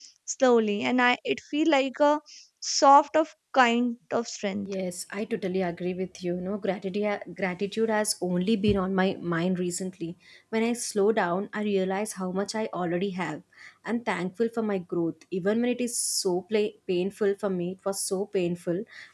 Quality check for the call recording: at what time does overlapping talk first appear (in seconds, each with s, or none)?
none